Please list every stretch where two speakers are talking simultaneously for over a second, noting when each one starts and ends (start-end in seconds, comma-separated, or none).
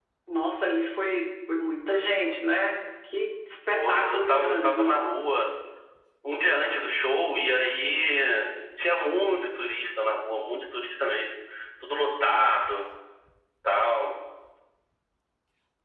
3.7-5.0